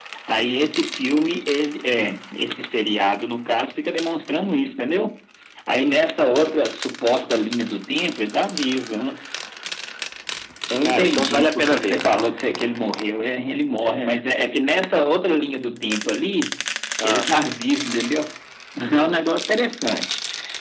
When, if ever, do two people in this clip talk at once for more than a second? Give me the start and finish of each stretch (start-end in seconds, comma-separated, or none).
10.8-12.1